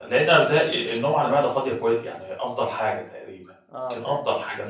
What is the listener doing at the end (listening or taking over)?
listening